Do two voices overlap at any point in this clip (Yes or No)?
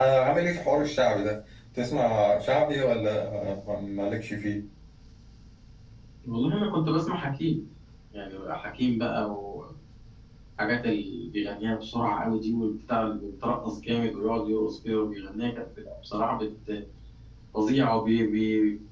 No